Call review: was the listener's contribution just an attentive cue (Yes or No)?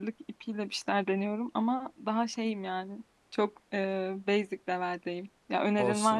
No